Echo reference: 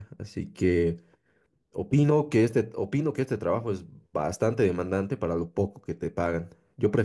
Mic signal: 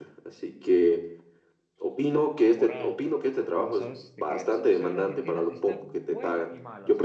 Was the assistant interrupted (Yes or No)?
Yes